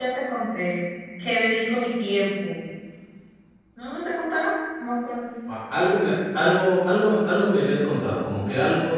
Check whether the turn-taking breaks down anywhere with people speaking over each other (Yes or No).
No